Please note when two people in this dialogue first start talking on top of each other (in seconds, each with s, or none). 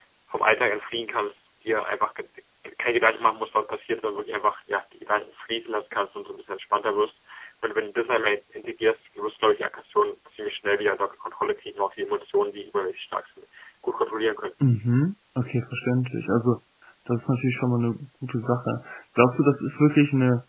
none